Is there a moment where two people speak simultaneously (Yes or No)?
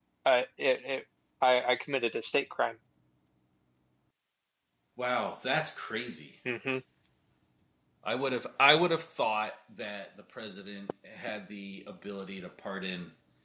No